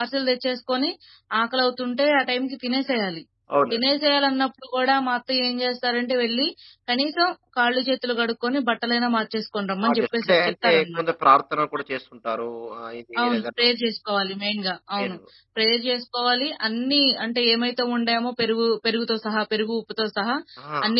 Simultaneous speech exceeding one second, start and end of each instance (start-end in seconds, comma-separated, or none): 9.8-11.0